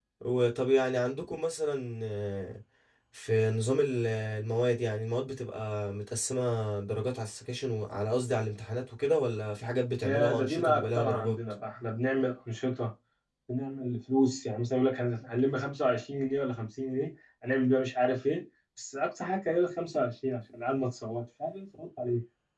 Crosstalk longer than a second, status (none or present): present